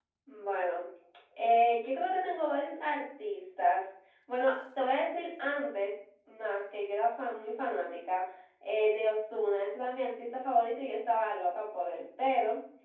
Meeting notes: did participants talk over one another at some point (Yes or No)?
No